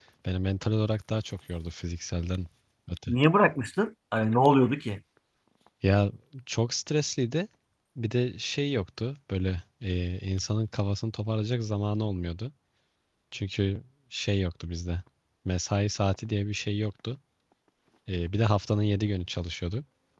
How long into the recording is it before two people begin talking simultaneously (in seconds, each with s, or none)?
none